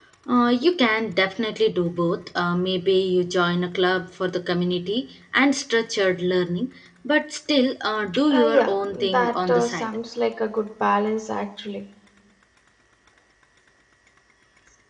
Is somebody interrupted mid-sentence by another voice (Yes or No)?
Yes